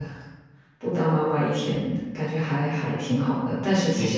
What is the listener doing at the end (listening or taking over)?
listening